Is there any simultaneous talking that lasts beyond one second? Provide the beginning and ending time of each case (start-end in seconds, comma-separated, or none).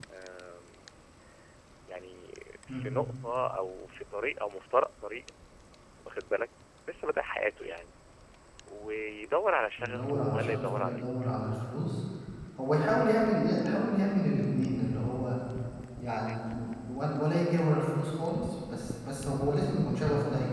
9.8-11.7